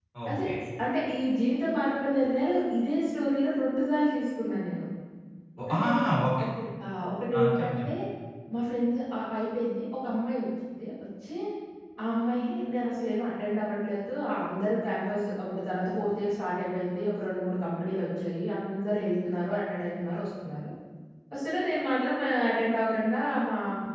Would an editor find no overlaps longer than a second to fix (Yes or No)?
Yes